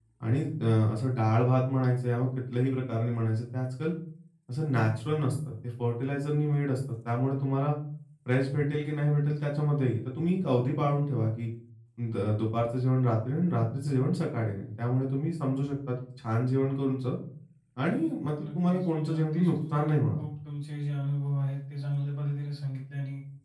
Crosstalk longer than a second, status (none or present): present